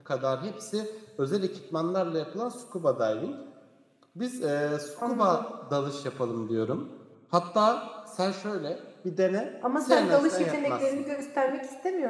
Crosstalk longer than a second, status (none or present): present